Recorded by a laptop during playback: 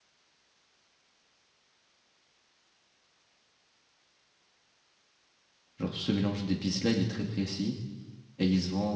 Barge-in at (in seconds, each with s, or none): 5.8 s